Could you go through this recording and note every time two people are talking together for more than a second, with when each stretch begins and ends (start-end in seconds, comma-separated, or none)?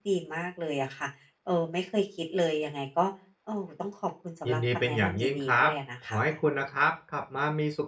4.5-5.7